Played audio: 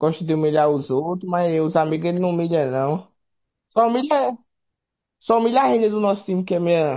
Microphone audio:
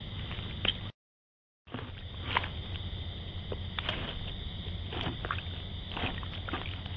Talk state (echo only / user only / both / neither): neither